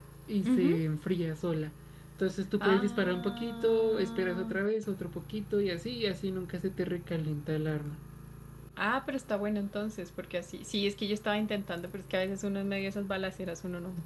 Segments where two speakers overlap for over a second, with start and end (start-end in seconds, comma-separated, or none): 2.6-4.5